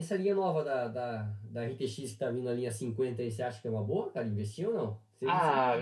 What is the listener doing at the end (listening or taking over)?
taking over